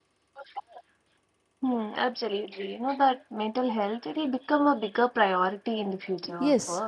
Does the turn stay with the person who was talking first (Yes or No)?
No